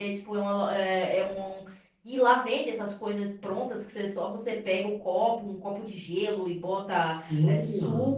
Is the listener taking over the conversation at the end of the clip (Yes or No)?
Yes